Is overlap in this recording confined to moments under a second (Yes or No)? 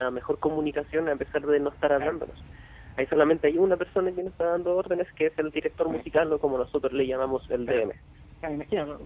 Yes